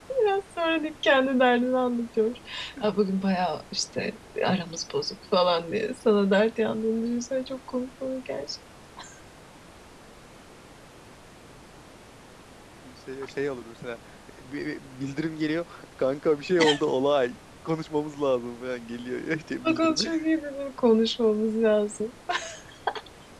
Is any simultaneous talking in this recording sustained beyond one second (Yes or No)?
No